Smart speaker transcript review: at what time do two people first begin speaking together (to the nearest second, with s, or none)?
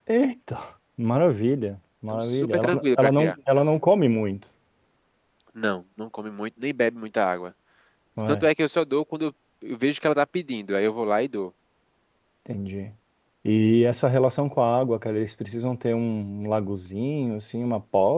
2 s